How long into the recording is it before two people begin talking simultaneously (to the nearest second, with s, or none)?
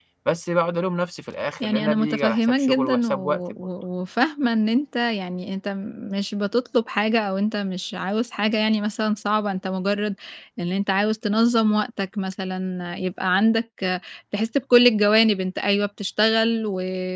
2 s